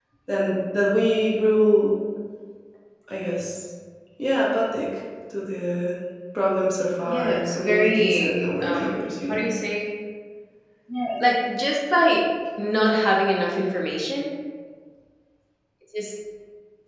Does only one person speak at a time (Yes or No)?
No